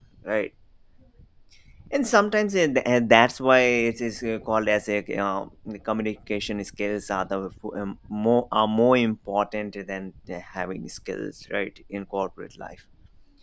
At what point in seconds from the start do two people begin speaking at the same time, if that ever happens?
none

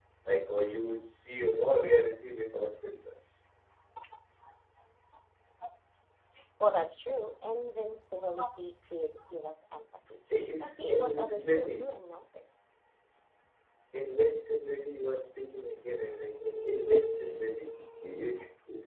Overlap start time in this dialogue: 10.6 s

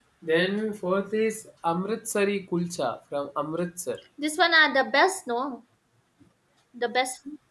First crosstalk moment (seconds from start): none

